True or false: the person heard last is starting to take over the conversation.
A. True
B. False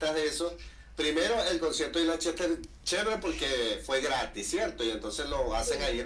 B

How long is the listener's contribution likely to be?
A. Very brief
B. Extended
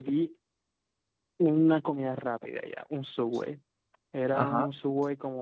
A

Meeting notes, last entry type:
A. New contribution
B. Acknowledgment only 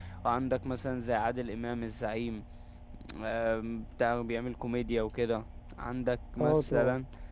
B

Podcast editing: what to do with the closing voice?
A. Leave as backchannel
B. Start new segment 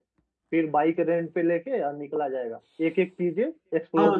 B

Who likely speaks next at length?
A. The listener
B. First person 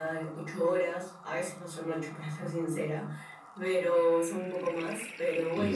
B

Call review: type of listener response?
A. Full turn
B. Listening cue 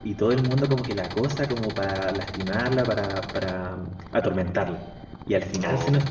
B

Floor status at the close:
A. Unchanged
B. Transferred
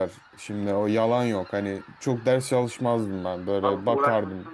B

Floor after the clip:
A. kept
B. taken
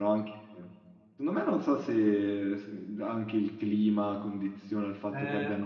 B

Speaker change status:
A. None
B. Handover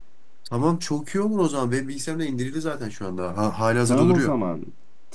B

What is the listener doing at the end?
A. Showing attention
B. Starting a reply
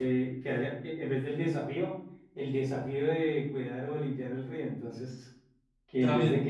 A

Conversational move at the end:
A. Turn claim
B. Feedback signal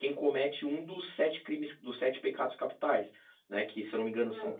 B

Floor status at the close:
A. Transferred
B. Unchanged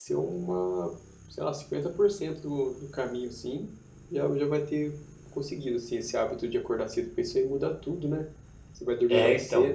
B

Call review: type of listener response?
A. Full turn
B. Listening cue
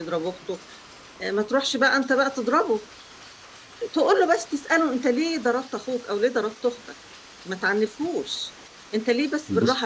B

